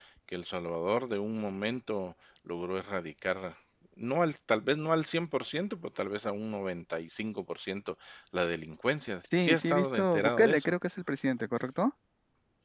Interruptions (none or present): present